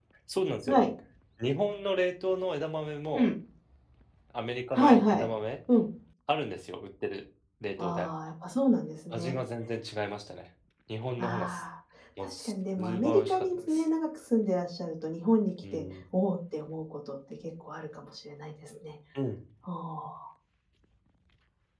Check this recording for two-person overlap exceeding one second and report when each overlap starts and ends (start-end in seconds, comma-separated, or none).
12.2-13.8